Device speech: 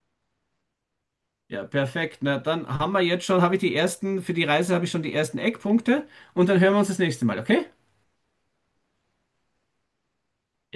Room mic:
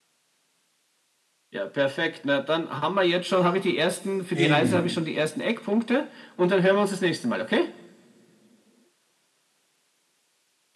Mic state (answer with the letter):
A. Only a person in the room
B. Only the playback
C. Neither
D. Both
D